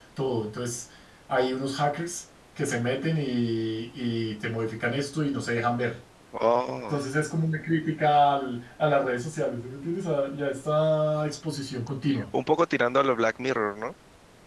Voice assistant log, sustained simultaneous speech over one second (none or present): none